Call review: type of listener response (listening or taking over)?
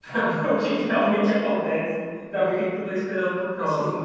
taking over